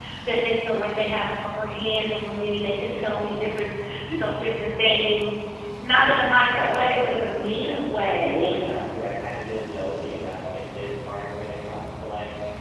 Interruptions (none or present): present